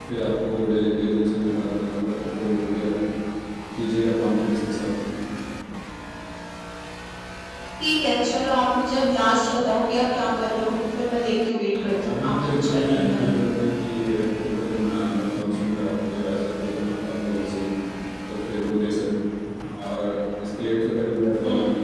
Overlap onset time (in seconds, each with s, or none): 12.1 s